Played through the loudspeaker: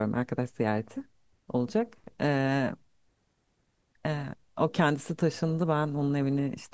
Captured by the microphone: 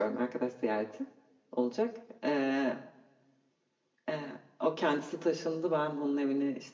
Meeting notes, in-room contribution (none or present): none